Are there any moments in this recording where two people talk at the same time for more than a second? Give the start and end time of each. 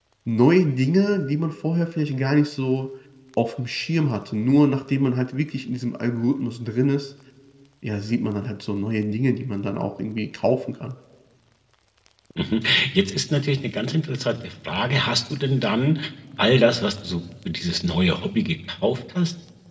none

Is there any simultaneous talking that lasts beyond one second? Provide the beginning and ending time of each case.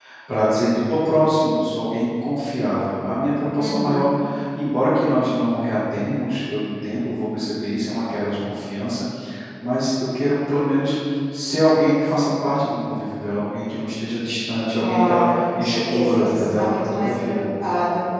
14.8-17.4

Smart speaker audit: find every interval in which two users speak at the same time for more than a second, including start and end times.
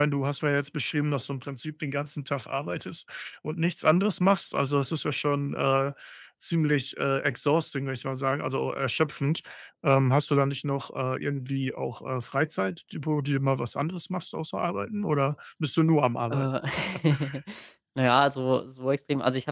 none

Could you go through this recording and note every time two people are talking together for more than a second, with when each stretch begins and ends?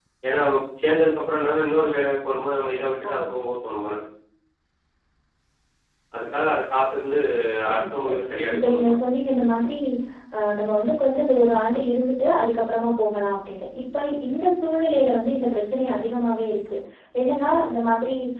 7.7-9.0

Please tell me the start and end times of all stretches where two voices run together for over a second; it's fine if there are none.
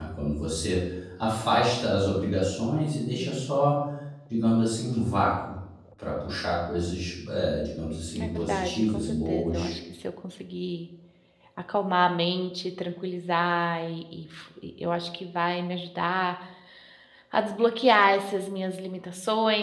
8.2-9.7

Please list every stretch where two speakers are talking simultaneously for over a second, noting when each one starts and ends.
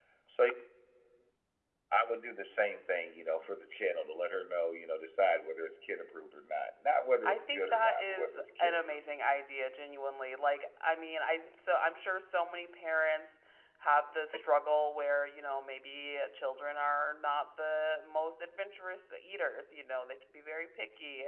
7.2-9.1

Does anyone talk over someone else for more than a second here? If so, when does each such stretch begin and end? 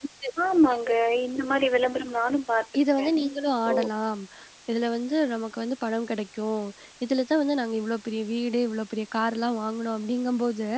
none

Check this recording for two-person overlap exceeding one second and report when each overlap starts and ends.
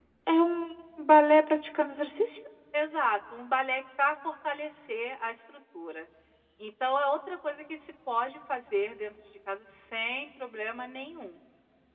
none

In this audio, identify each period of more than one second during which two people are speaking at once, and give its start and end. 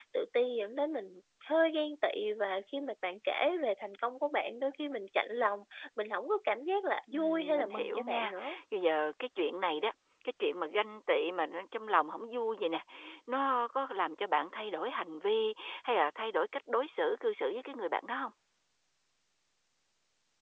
7.1-8.3

